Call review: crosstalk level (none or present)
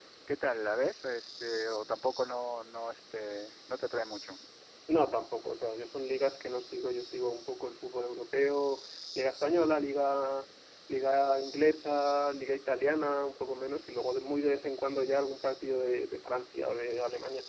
none